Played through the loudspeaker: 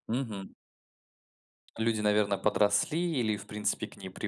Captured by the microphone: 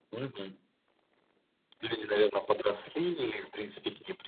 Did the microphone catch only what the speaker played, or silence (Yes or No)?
Yes